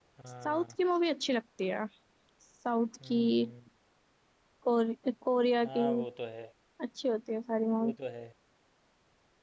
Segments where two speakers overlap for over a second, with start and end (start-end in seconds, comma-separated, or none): none